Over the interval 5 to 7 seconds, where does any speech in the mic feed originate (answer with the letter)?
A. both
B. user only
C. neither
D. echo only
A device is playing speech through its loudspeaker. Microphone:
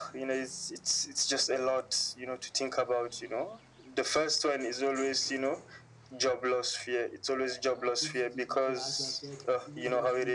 D